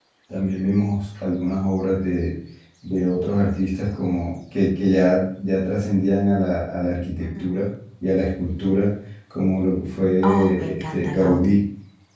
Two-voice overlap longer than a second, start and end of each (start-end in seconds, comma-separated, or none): 10.2-11.6